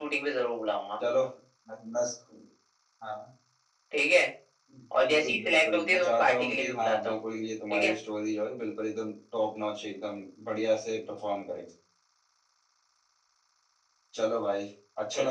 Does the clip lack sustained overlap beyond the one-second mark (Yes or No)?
No